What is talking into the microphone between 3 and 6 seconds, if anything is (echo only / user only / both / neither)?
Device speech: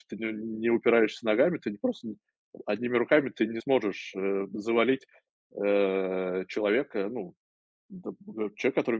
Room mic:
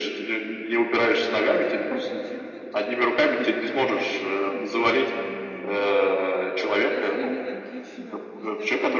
both